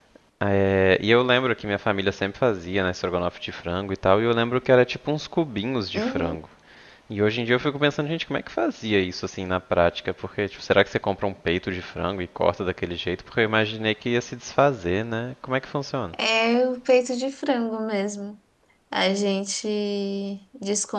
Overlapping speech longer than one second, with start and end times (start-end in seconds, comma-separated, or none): none